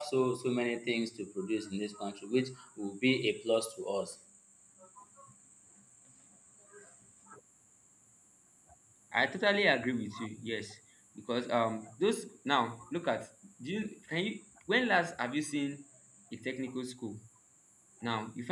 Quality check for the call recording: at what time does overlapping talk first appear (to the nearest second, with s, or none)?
none